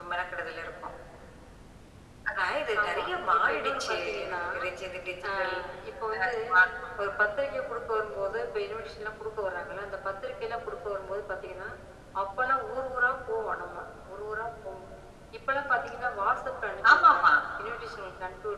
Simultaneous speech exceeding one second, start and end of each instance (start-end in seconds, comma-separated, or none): 2.8-4.4